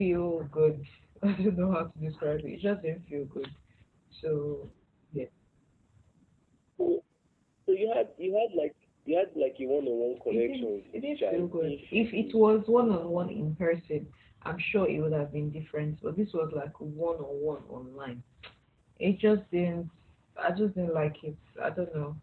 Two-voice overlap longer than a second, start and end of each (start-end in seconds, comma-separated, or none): 10.3-12.4